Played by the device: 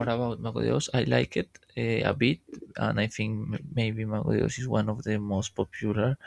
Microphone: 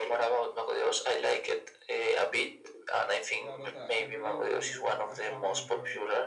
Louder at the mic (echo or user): echo